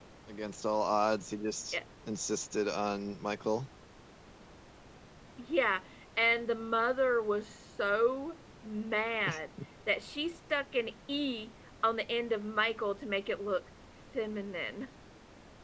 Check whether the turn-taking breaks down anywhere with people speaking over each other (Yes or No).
No